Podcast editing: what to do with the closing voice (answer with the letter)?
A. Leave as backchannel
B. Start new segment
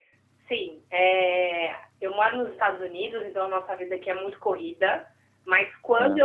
A